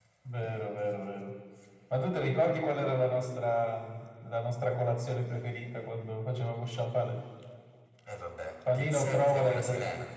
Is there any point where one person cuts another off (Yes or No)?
Yes